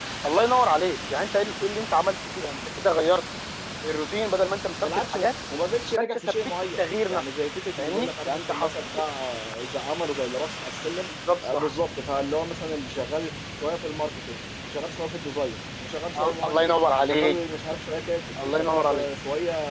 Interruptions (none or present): present